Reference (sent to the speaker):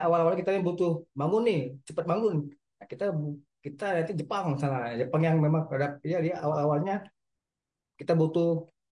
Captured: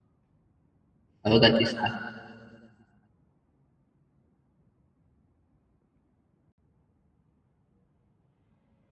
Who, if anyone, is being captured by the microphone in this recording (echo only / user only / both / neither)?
user only